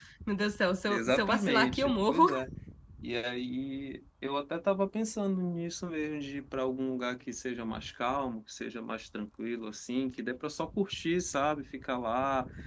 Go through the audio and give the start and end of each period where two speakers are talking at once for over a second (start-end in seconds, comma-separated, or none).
0.9-2.2